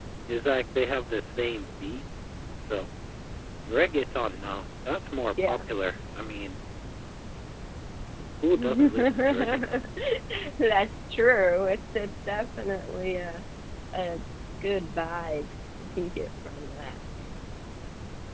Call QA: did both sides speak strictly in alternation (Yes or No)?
No